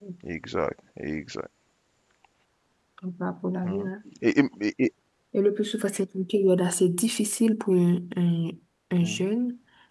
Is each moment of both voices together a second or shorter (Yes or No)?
Yes